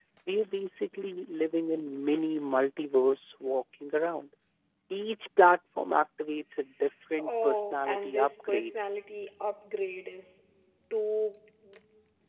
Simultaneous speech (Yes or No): Yes